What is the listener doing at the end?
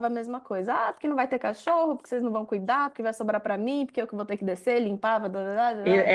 taking over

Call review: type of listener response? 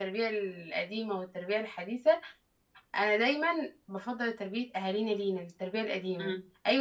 taking over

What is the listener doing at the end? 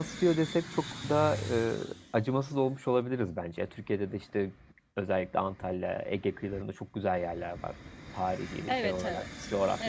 taking over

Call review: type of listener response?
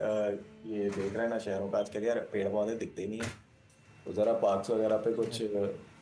listening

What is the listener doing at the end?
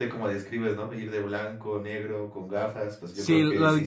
taking over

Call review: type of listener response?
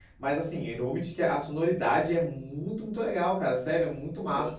listening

